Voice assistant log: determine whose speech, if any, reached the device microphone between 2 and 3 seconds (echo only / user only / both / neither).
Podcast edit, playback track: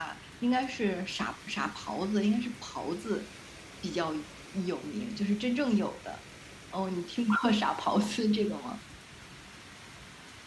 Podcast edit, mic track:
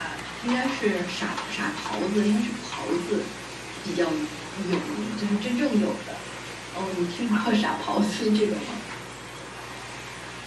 echo only